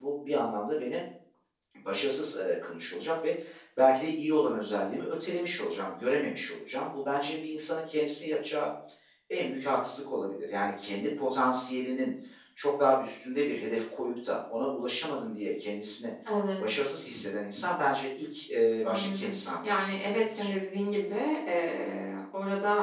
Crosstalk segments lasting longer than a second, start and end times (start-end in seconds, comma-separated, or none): 18.8-20.5